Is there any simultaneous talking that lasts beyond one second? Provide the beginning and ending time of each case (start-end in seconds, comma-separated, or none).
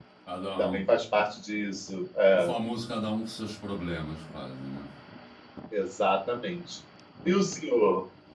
none